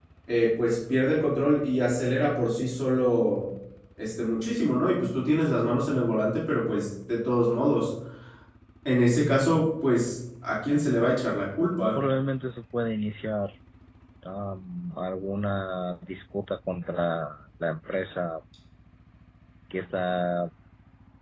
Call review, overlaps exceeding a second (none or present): none